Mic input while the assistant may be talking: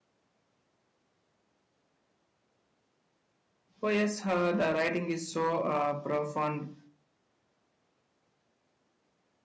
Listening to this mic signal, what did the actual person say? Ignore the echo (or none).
Oh yes, uh, the writing is so uh, profound